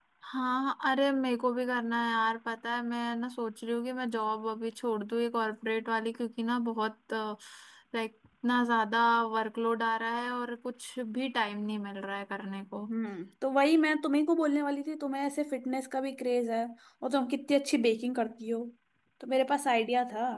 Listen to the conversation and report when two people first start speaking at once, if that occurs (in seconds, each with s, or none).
none